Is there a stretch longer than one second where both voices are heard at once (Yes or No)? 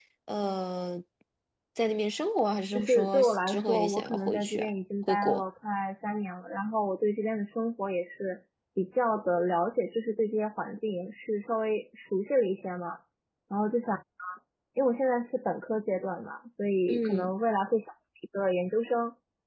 Yes